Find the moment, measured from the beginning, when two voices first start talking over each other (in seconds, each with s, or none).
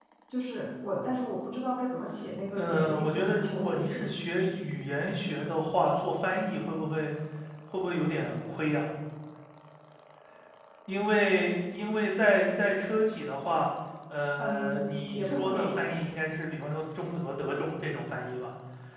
2.6 s